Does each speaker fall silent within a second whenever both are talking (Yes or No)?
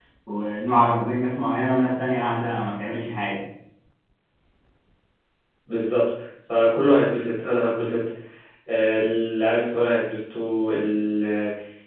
Yes